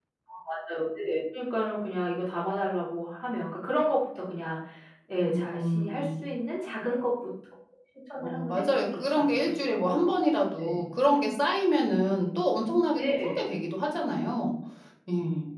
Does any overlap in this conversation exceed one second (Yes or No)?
Yes